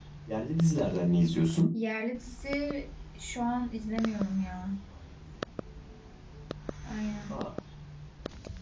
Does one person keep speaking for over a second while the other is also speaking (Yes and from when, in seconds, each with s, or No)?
No